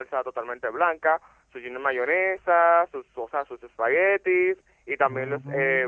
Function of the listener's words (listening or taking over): listening